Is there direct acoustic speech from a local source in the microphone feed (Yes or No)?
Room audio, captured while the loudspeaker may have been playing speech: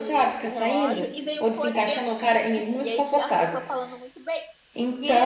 Yes